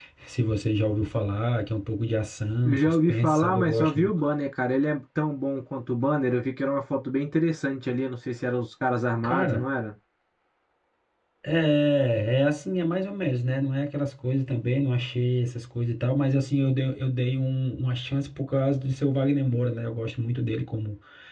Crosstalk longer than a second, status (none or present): present